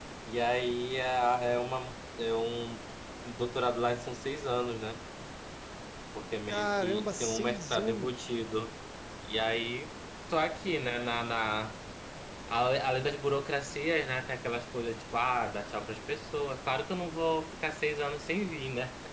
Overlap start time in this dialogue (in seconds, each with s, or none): 6.5 s